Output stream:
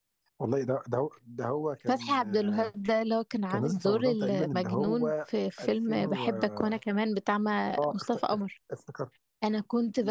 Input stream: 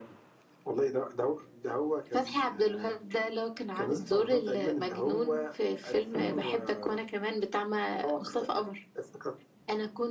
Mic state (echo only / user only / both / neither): echo only